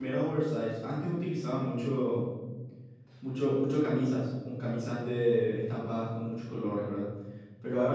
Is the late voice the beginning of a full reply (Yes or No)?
No